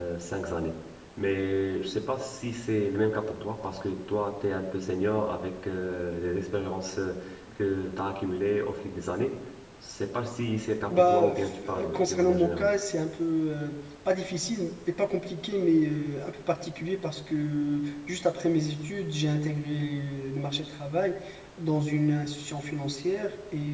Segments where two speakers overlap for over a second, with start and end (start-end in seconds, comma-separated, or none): 10.9-12.7